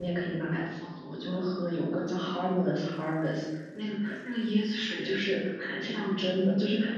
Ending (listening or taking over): listening